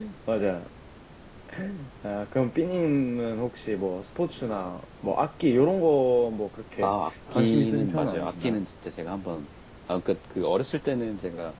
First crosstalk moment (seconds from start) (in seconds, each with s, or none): 7.4 s